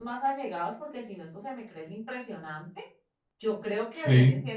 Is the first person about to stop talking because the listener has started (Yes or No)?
No